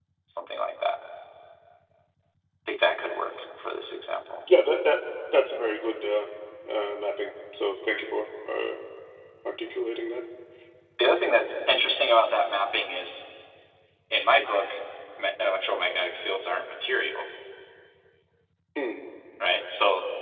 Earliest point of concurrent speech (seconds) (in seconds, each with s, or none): none